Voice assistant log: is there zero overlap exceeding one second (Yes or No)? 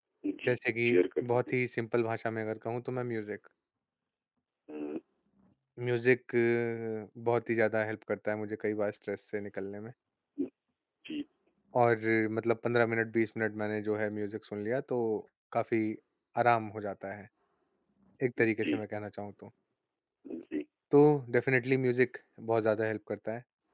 Yes